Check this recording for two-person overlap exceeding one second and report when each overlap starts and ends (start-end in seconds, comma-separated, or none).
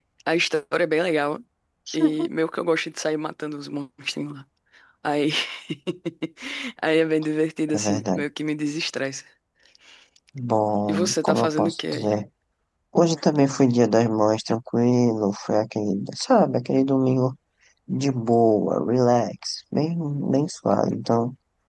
10.9-12.1